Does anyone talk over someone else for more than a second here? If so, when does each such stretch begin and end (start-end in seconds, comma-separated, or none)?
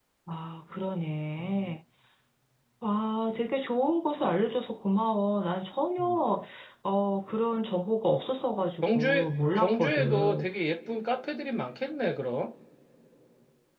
8.8-10.5